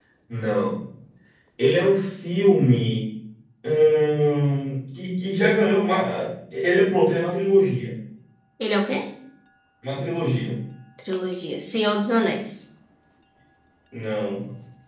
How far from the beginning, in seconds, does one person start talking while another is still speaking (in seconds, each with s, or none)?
none